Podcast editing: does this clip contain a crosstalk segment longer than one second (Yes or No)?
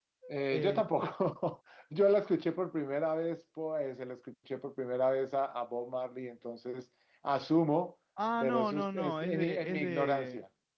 Yes